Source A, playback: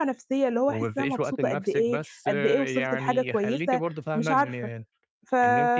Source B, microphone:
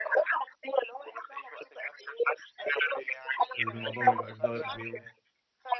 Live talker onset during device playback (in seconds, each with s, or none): 3.6 s